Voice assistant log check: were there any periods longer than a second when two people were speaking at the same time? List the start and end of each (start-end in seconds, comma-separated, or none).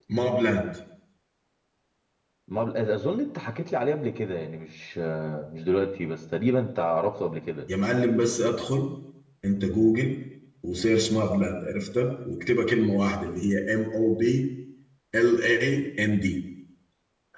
none